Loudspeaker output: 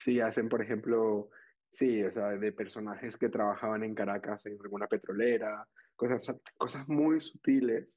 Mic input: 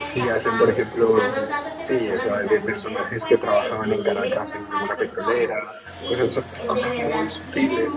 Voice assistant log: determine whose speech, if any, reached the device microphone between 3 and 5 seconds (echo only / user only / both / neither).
both